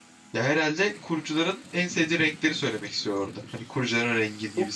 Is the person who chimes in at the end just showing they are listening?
No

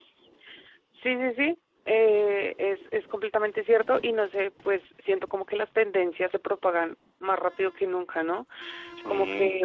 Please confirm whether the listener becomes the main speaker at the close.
No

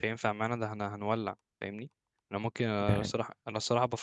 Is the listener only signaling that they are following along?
Yes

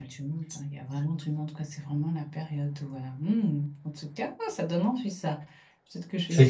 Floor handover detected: No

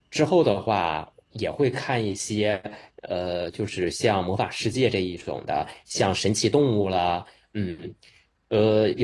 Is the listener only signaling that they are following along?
Yes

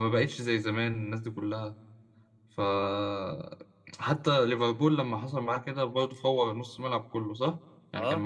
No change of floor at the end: Yes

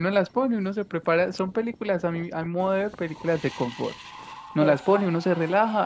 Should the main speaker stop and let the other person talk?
No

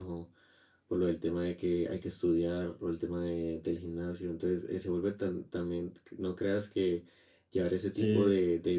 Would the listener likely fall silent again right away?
Yes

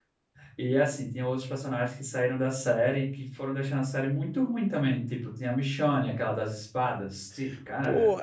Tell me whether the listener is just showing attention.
No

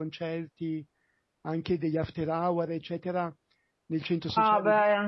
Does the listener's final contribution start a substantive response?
Yes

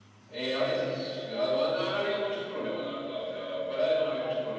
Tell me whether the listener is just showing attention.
Yes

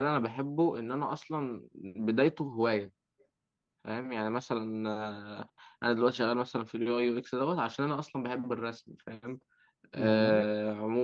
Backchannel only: Yes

